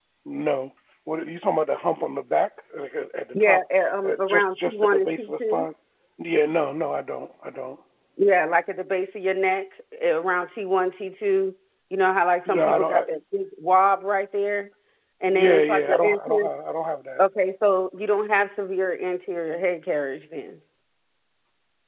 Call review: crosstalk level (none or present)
present